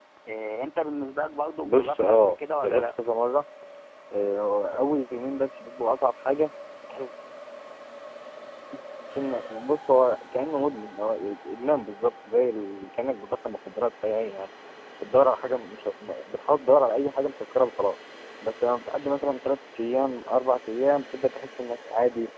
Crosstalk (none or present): present